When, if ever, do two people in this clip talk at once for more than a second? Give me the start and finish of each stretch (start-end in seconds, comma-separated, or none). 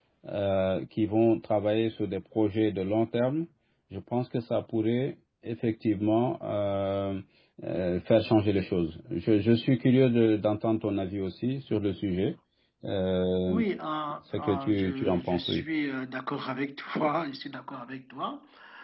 14.3-15.6